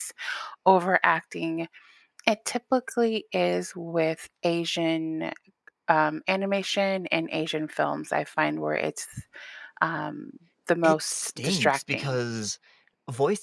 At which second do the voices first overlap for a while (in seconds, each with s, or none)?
10.8 s